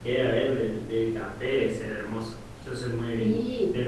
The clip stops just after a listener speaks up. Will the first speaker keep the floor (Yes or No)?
No